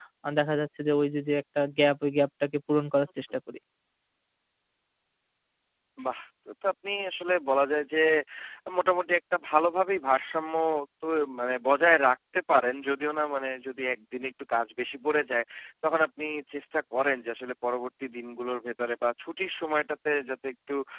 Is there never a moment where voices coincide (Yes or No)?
Yes